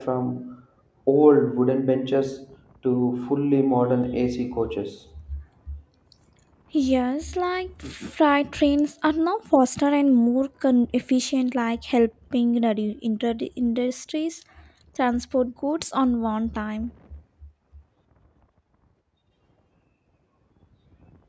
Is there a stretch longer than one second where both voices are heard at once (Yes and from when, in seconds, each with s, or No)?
No